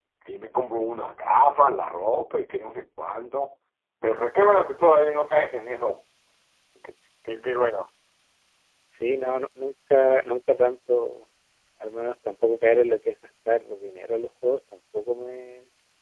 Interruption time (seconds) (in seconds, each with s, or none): none